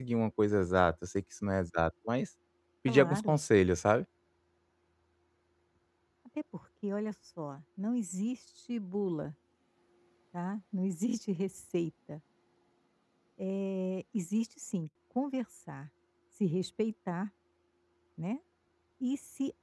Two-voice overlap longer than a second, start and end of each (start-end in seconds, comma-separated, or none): none